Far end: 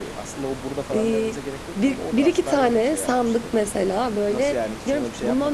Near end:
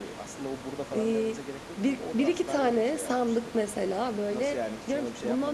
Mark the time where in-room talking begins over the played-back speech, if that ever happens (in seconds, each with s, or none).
none